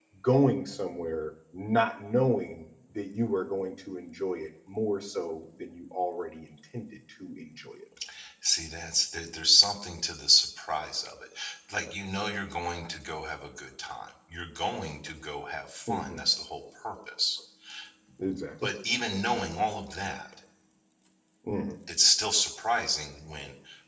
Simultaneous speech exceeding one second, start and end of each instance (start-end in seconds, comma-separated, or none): none